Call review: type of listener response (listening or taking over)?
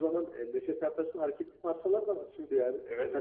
listening